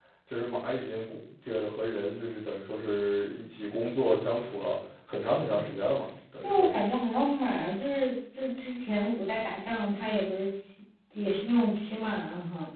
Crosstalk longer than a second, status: none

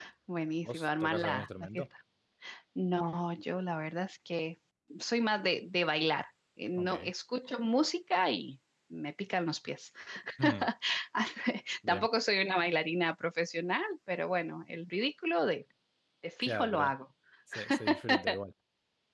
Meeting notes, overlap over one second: present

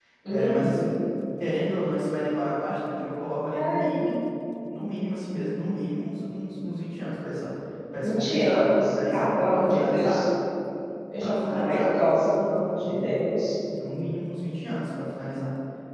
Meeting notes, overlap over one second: present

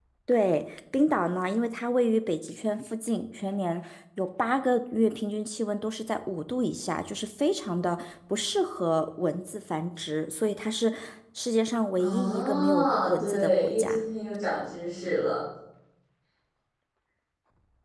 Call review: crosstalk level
present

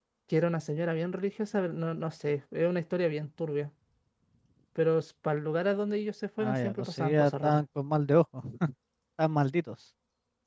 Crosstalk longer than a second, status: present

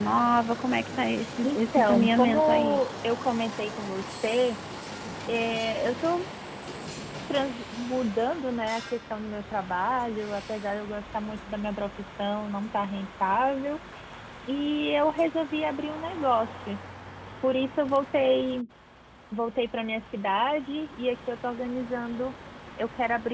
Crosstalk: present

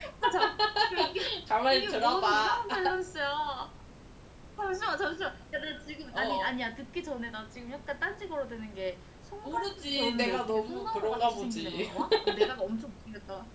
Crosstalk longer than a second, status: present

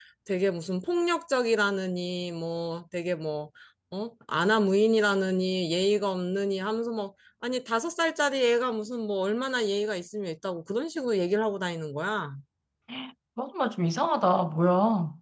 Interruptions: none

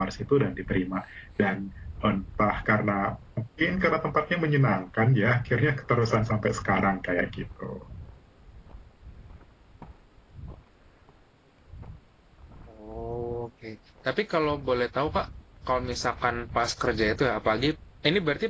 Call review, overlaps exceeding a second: none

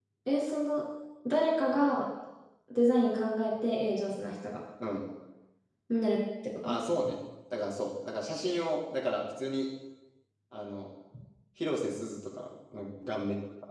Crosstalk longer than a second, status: none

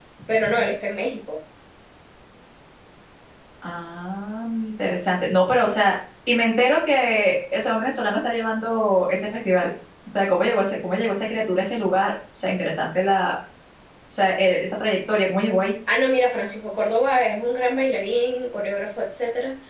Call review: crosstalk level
none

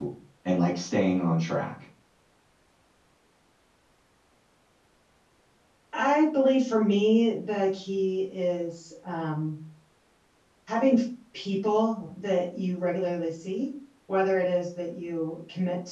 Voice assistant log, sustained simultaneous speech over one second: none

